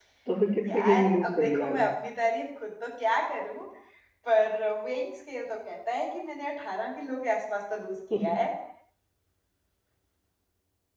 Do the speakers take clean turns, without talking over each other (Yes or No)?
No